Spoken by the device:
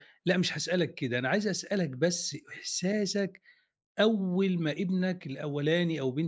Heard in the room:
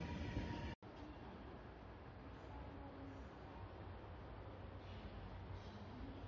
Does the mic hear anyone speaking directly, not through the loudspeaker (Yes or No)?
No